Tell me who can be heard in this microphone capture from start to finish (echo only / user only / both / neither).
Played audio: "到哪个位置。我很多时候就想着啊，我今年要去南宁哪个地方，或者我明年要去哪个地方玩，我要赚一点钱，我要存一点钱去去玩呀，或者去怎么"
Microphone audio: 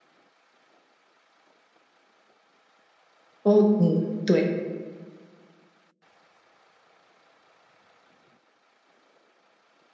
user only